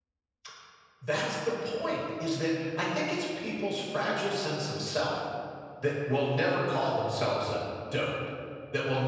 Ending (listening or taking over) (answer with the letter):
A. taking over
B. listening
B